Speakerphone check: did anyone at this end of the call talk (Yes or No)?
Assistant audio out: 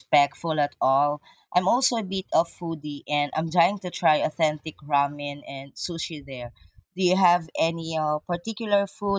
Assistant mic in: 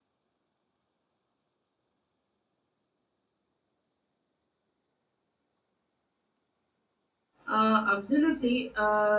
Yes